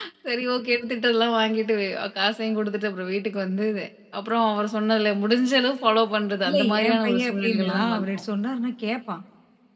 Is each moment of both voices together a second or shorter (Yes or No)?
No